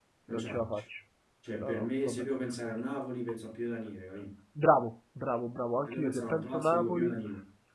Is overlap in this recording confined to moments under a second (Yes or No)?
No